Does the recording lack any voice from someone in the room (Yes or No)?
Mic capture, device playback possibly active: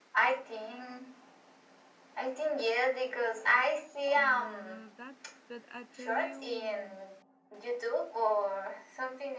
No